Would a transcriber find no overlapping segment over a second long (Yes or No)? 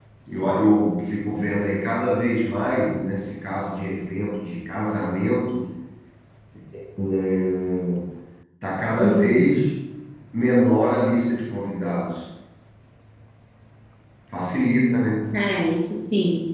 Yes